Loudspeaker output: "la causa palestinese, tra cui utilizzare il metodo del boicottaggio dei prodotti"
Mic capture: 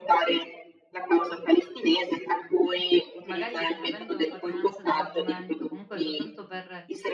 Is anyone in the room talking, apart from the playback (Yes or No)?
Yes